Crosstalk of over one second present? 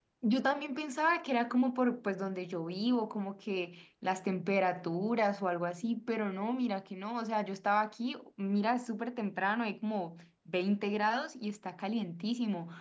No

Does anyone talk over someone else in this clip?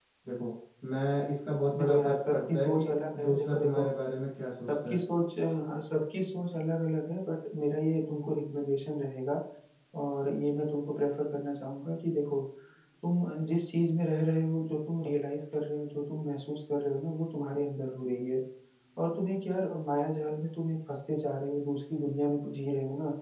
Yes, from 1.7 s

